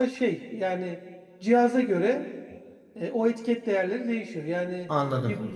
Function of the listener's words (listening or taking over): listening